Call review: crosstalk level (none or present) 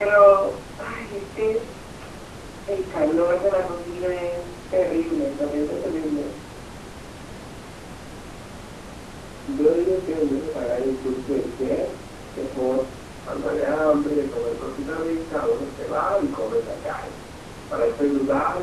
none